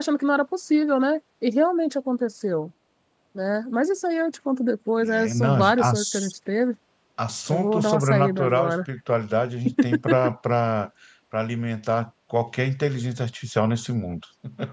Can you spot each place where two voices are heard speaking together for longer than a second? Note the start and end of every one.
5.0-6.3, 7.5-8.8

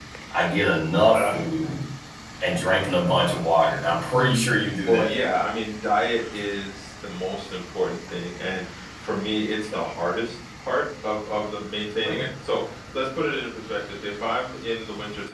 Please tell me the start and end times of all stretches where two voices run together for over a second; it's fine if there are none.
none

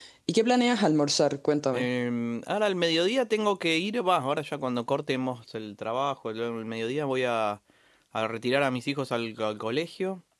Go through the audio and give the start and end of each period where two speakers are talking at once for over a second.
none

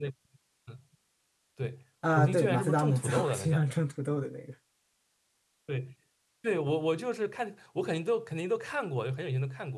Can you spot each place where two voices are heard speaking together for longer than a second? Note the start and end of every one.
2.1-3.6

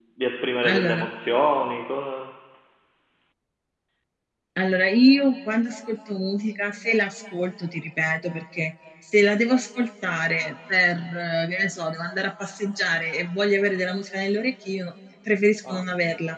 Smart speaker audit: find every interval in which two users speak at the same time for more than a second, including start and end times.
none

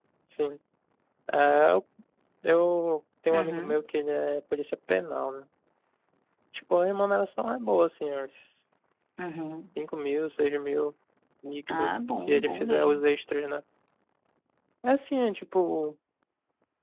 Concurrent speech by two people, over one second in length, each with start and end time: 11.7-13.0

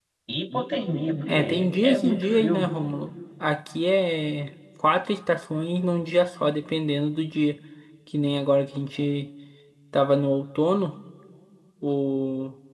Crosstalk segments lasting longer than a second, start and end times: 1.3-2.7

